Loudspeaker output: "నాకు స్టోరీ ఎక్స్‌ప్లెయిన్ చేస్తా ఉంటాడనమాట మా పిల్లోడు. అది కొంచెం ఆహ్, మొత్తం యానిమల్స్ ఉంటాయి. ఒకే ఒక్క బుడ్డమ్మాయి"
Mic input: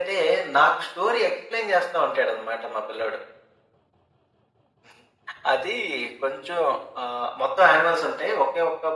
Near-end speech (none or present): none